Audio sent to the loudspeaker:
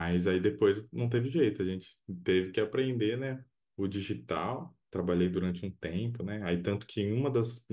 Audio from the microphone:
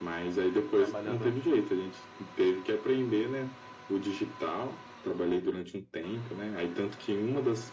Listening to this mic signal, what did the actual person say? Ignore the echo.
tra- trabalhando

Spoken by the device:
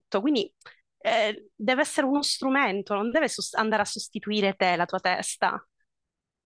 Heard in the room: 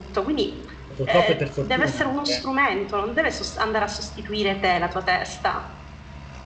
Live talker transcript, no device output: purtroppo e per fortuna anche,

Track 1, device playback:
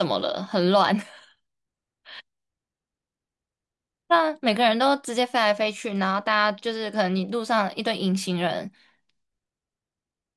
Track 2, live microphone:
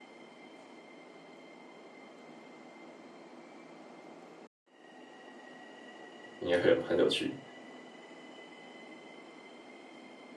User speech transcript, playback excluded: 应该会很很有趣。

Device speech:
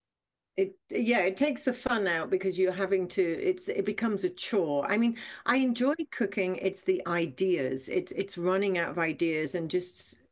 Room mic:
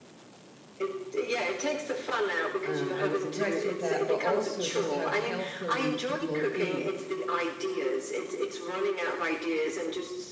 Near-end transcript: um, I was impressed with that, but also just how healthily people ate.

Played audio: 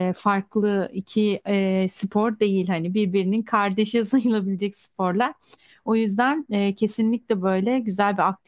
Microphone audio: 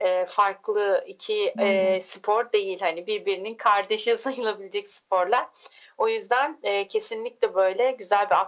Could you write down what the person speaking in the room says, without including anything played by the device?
Aynen.

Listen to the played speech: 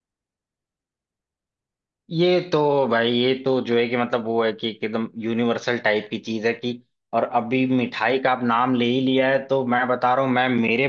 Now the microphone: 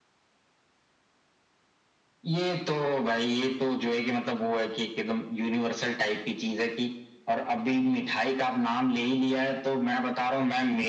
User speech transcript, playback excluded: none

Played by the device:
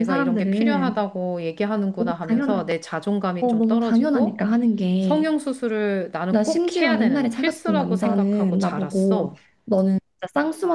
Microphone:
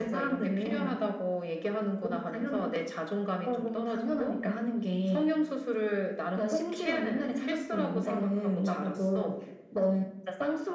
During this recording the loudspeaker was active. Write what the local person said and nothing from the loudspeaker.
none

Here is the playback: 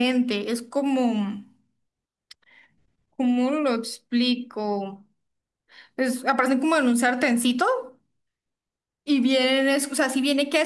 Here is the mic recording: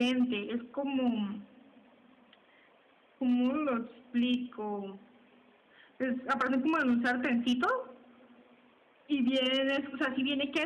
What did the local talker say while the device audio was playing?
none

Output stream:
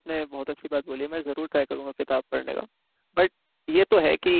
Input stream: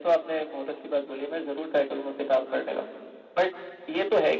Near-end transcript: none

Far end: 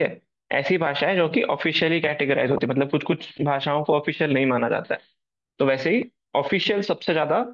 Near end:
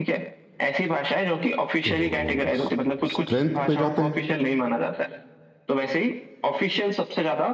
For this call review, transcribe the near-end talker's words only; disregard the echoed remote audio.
तो स्ट्रेंथ पे जाते हैं

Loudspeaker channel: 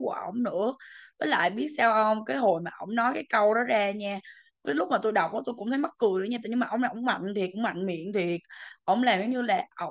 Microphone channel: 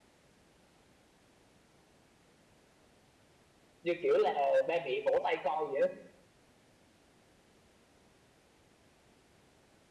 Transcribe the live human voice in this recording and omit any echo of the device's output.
như kiểu là ba mẹ vỗ tay con vậy đó

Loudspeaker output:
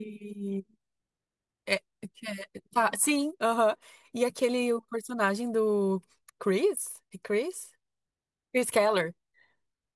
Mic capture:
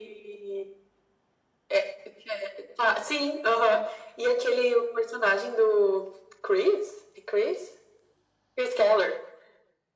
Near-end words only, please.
none

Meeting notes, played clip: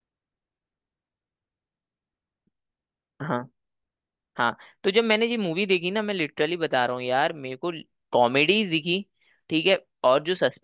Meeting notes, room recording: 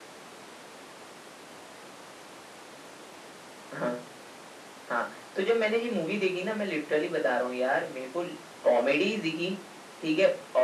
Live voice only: none

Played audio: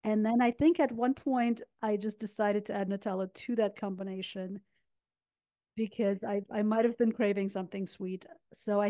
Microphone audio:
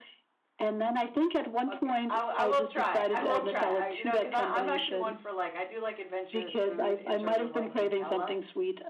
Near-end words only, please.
Okay, I, I will try it. I will try it. I, you know, because I'm actually one for like I do like adventurous food in terms of like Nutella,

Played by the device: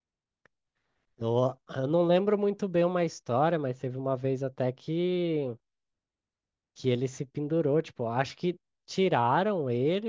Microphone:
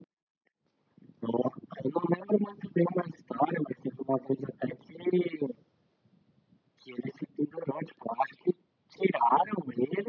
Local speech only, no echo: none

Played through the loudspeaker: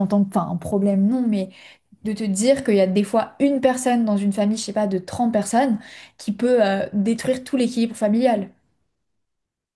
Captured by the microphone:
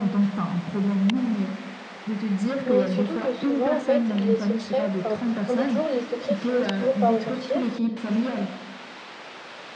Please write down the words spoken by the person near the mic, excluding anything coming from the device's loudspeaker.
Mais surtout que souvent, en fait, les secrets, enfin, on dit toujours, les secrets finissent toujours par ressortir du,

